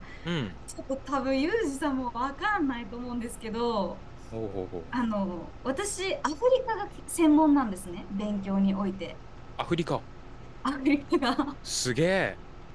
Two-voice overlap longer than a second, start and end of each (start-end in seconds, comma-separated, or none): none